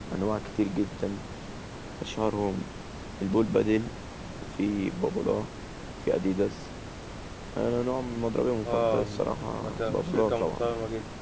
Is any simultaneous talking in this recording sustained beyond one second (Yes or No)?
Yes